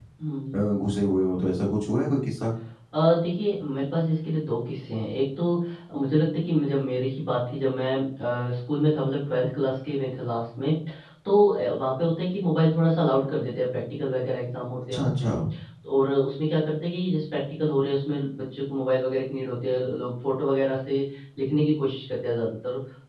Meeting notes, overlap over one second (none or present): none